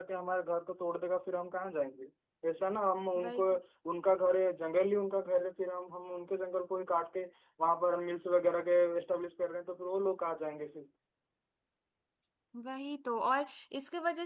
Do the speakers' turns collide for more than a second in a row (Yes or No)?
No